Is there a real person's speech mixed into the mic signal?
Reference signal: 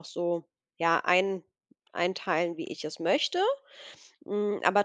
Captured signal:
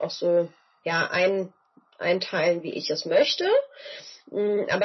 No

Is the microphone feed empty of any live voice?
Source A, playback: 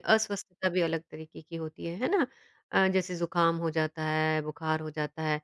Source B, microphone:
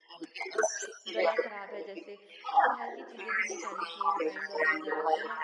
No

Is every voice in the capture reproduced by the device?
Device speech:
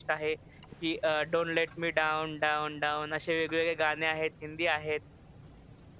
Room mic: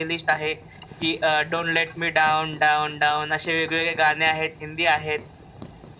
Yes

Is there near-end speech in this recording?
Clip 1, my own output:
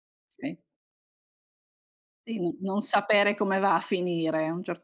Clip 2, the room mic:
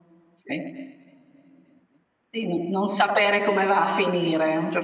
No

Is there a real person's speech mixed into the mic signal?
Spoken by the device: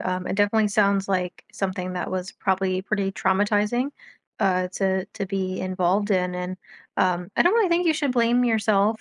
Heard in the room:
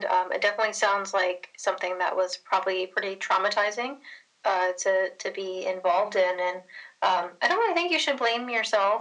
No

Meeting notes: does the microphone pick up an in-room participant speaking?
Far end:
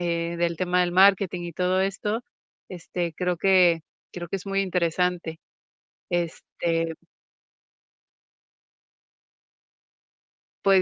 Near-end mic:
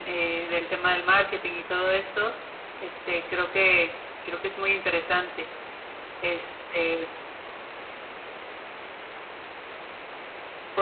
No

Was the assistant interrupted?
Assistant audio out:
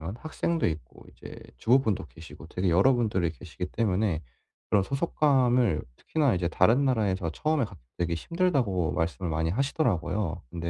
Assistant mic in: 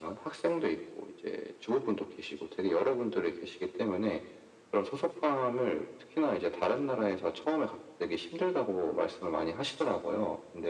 No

